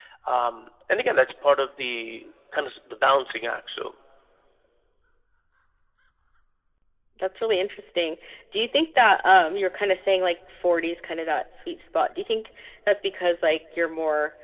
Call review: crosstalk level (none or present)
none